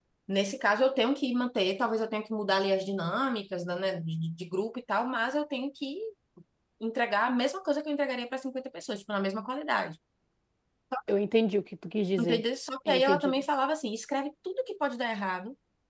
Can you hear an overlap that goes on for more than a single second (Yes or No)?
No